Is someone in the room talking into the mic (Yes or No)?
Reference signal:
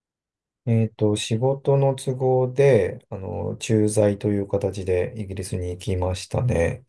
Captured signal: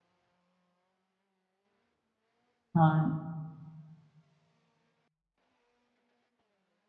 Yes